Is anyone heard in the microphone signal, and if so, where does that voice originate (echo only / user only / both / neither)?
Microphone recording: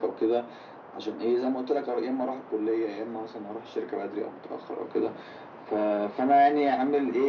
echo only